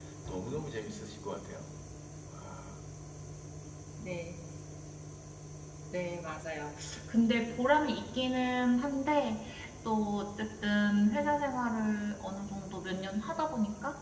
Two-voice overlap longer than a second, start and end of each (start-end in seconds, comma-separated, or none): none